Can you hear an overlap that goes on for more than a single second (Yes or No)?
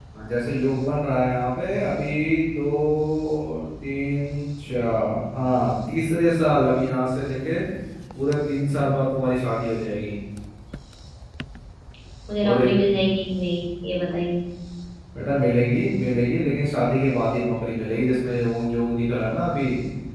No